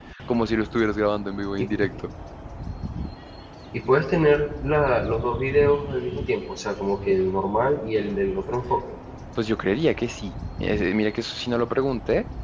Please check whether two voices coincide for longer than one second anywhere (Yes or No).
No